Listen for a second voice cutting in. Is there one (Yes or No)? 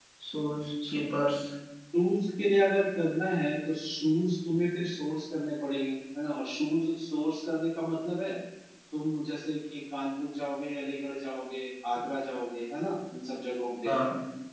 No